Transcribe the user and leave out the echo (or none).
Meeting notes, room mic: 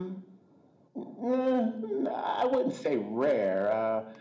none